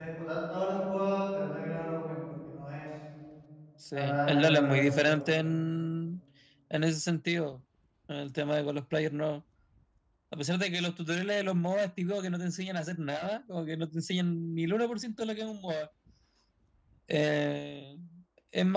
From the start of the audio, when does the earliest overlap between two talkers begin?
3.9 s

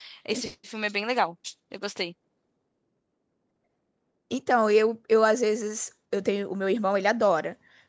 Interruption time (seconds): none

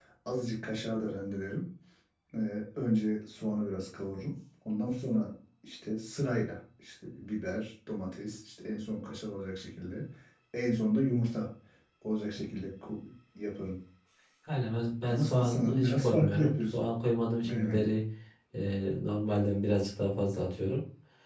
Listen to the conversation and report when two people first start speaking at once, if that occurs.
15.1 s

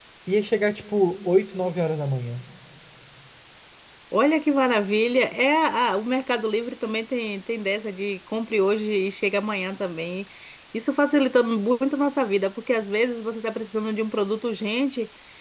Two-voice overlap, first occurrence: none

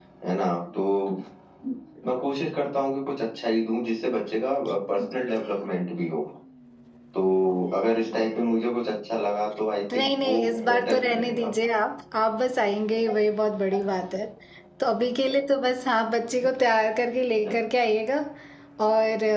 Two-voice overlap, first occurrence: 9.9 s

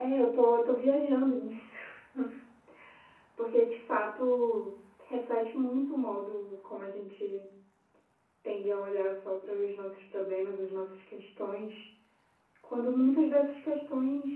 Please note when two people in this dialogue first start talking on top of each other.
none

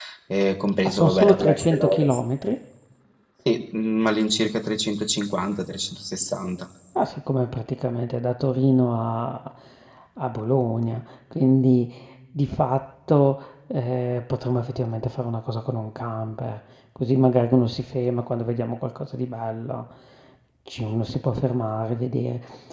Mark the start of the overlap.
0.8 s

